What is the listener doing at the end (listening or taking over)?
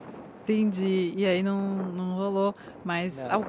listening